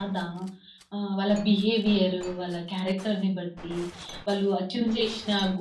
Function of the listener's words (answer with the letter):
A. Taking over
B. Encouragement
B